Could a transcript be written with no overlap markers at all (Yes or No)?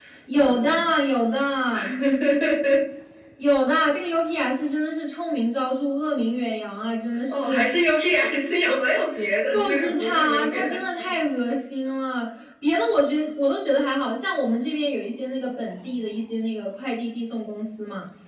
No